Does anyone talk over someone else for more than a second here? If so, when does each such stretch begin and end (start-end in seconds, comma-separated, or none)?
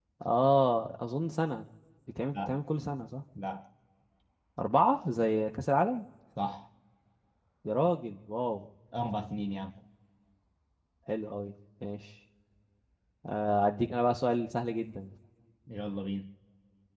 none